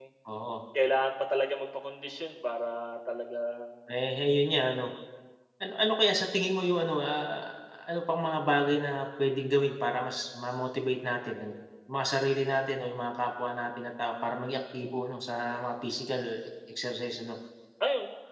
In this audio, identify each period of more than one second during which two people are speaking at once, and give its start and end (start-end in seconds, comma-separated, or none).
none